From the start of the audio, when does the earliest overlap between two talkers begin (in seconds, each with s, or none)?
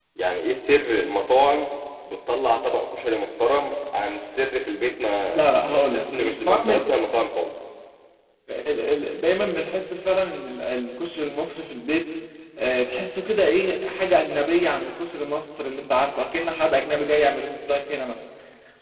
5.3 s